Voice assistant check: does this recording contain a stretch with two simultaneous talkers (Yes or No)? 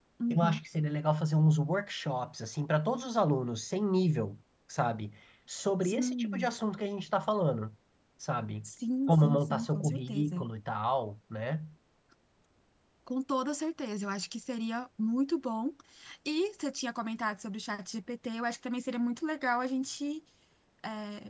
Yes